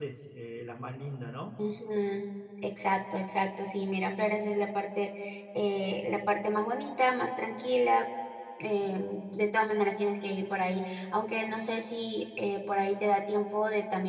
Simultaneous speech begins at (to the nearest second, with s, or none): none